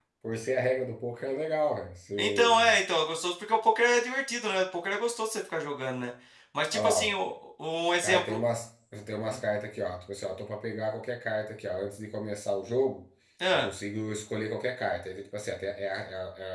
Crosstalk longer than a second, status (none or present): none